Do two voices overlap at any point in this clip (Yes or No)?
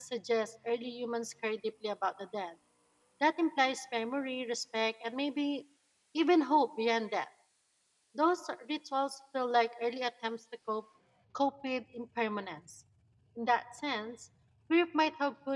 No